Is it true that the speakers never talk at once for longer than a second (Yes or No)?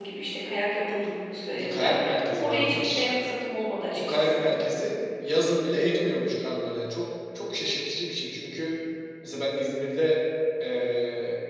No